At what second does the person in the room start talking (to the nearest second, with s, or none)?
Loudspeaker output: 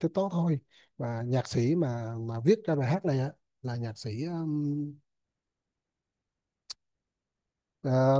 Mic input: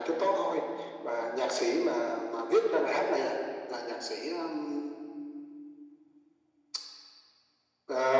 none